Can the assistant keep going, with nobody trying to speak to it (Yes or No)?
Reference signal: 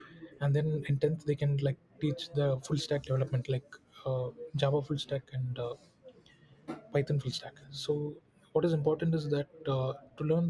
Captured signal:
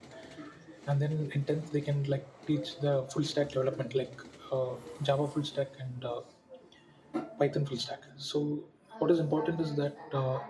No